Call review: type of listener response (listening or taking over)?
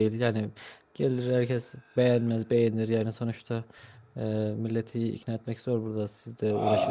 taking over